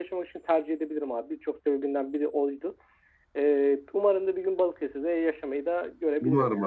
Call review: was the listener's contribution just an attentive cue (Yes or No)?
No